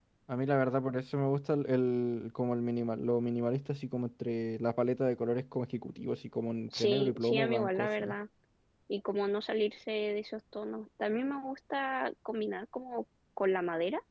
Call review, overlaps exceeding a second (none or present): present